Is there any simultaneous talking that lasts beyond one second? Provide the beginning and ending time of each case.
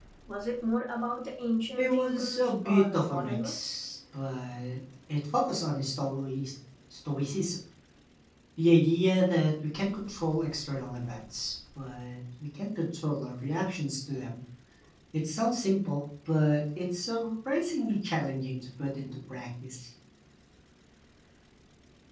1.8-3.8

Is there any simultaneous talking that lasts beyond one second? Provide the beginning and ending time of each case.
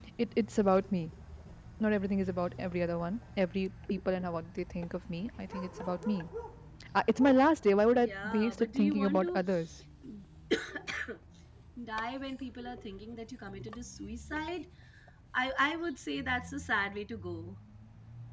7.9-9.4

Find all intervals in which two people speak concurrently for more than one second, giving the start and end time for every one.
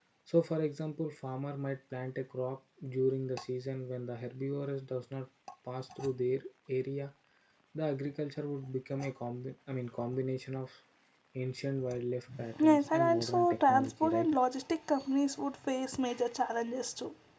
12.6-14.3

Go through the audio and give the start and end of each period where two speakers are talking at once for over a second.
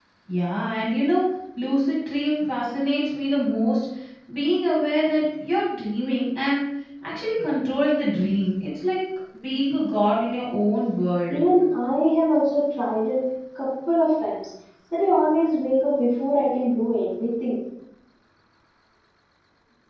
none

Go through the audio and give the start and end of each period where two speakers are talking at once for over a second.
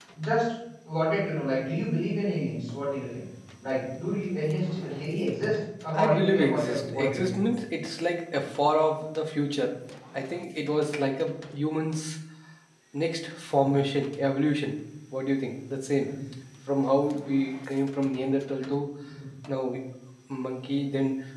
5.9-7.4

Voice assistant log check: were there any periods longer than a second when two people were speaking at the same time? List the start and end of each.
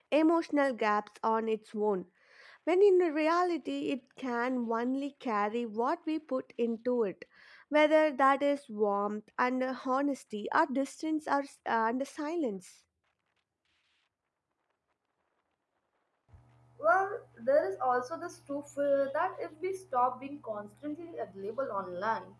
none

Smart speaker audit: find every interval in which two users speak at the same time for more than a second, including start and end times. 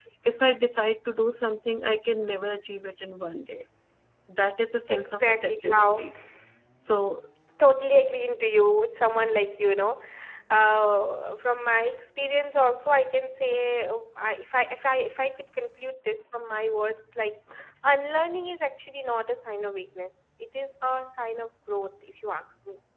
4.9-6.1

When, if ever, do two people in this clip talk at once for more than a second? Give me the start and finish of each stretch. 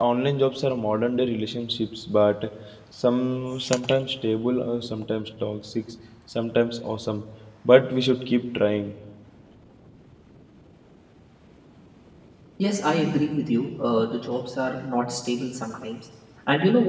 none

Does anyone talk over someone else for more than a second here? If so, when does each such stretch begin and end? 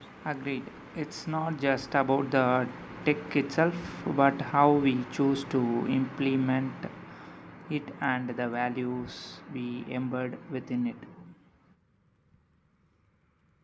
none

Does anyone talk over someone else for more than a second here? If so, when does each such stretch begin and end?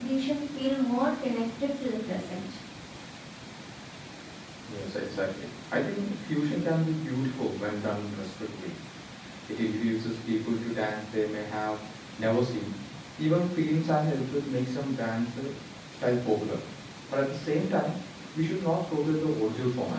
none

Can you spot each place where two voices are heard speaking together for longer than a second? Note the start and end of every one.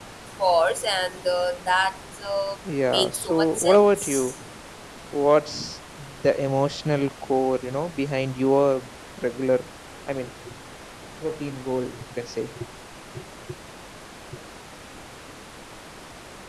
2.9-4.3

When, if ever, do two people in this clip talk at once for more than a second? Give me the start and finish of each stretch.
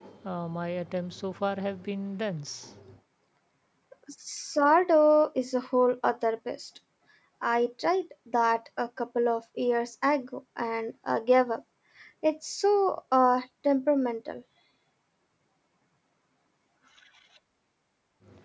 none

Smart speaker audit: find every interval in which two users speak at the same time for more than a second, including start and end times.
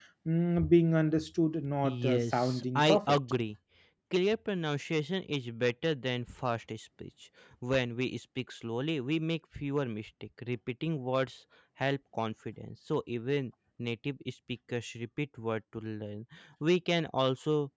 1.8-3.2

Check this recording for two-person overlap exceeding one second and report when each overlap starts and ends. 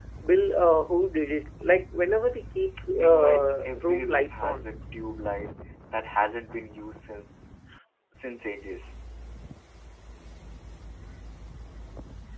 2.9-4.6

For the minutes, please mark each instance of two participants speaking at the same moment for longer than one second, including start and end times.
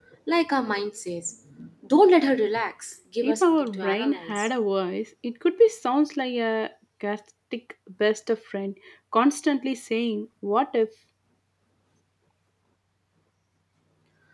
3.2-4.5

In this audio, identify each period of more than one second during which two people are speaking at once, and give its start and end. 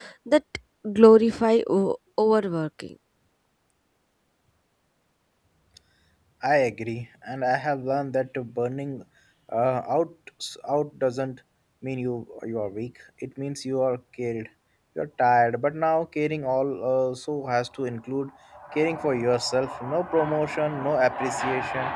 none

